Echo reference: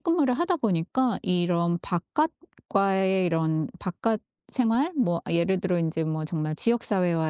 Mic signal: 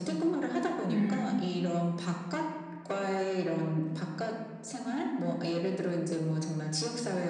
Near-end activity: present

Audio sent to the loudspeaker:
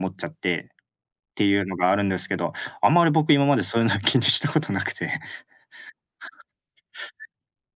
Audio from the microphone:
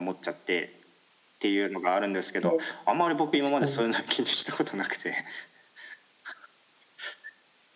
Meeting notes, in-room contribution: present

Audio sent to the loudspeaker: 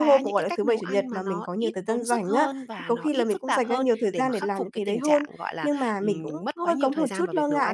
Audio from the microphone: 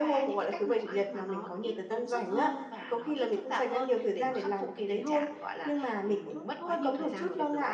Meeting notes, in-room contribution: none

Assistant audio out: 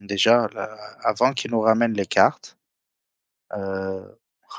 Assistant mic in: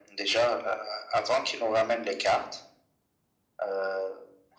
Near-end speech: none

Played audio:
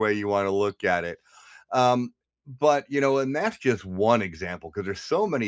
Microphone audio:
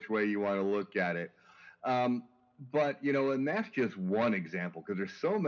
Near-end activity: none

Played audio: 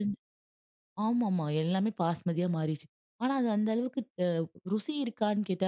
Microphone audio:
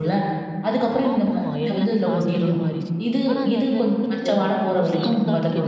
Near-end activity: present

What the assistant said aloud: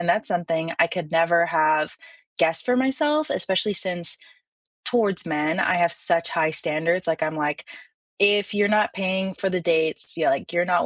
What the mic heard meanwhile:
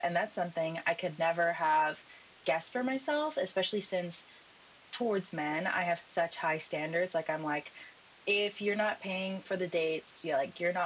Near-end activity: none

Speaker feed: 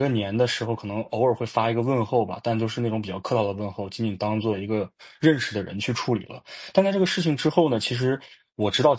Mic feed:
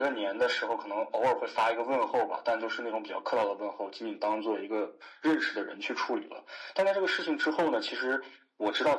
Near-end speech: none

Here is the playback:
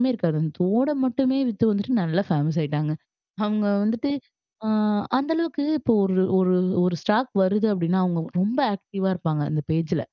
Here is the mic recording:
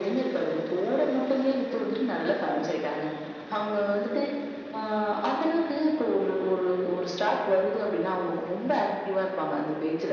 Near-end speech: none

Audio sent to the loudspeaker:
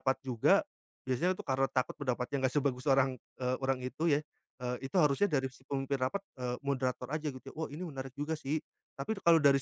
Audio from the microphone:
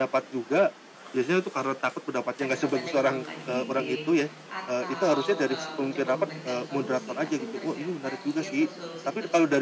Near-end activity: present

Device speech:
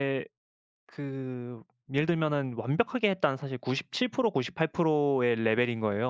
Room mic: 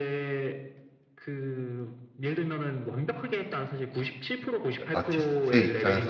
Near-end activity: present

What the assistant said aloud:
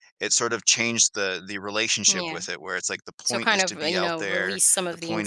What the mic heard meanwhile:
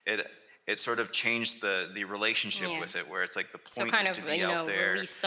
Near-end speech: none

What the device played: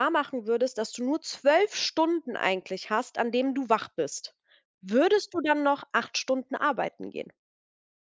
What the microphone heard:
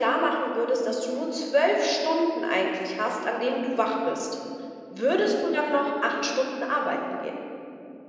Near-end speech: none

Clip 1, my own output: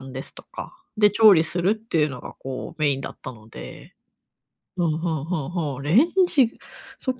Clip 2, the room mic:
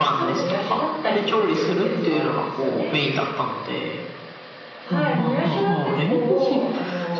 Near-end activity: present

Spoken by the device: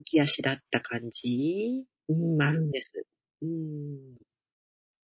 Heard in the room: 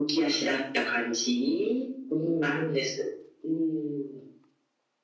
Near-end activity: none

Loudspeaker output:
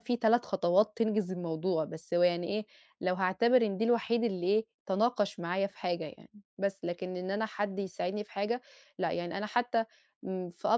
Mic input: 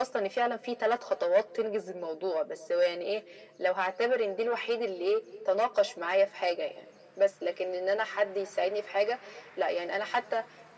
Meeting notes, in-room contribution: none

